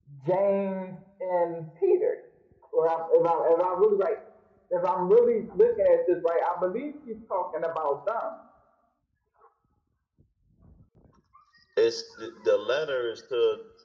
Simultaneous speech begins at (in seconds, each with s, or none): none